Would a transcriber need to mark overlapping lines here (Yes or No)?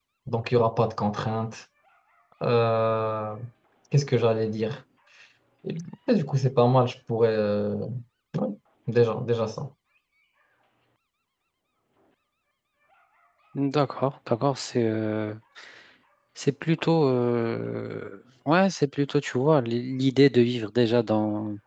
No